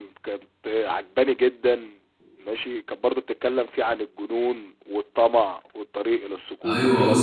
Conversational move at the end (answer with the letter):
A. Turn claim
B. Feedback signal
A